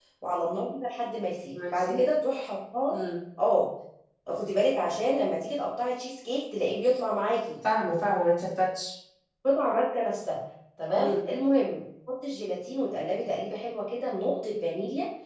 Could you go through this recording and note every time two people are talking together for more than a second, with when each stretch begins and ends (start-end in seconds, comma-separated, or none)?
none